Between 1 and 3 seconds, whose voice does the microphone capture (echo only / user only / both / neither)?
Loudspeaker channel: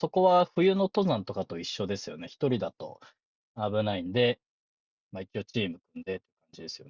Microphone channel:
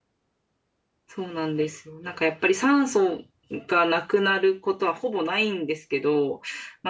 user only